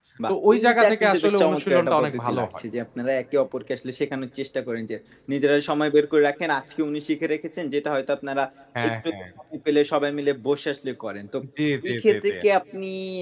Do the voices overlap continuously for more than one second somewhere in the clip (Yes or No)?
Yes